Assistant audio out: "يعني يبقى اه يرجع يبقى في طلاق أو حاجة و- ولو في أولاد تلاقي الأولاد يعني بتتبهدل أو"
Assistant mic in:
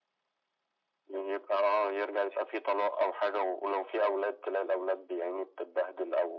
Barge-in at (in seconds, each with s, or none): none